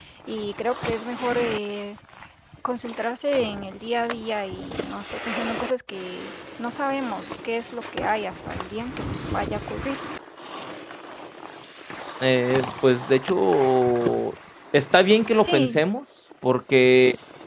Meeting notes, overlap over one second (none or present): none